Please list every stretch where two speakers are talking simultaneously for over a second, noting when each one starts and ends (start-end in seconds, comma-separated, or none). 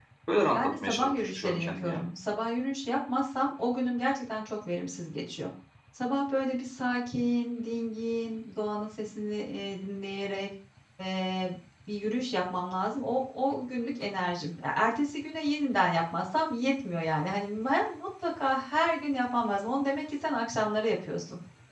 0.5-2.0